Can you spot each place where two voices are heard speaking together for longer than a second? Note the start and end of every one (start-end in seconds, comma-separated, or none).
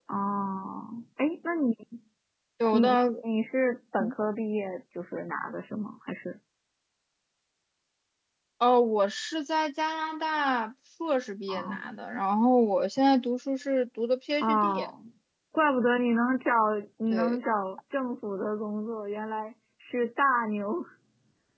none